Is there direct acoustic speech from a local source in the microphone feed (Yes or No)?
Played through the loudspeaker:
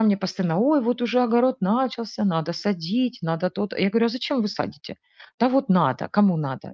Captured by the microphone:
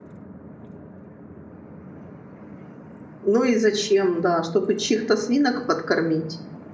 Yes